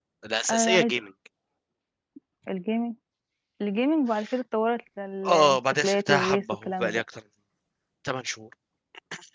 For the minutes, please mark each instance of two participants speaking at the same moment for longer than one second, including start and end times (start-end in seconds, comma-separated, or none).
5.3-7.0